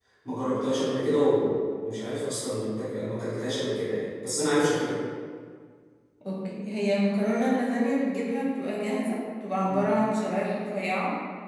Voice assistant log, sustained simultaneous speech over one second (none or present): none